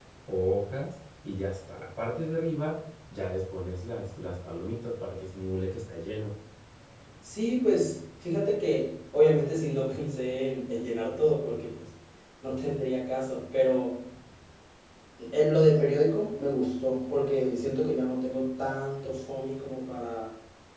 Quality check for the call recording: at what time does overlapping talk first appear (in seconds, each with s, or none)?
none